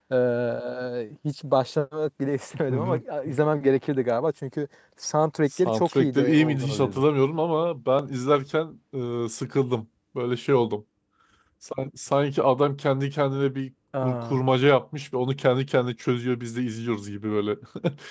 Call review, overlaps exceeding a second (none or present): present